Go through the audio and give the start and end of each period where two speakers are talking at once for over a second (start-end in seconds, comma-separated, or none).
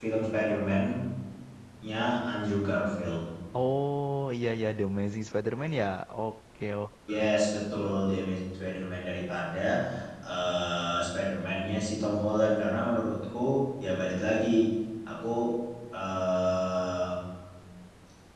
none